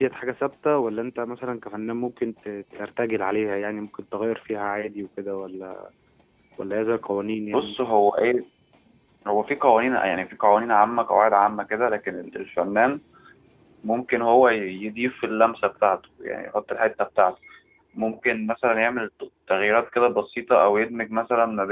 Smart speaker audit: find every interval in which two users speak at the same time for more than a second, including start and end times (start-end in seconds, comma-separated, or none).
none